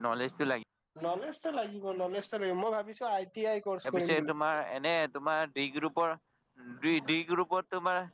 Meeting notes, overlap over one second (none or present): none